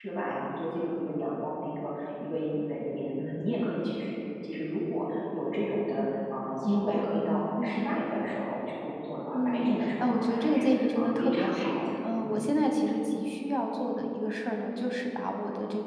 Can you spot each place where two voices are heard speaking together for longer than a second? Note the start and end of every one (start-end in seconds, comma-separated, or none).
9.3-12.4